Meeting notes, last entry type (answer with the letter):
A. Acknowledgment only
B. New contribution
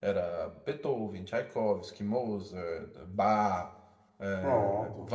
A